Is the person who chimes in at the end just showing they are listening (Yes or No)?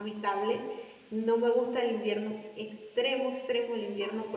Yes